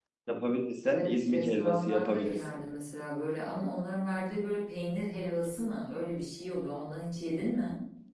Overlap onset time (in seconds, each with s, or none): 0.8 s